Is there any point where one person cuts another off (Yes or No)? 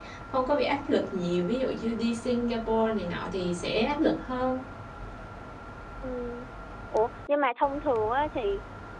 No